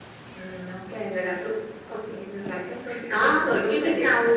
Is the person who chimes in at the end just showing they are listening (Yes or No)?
No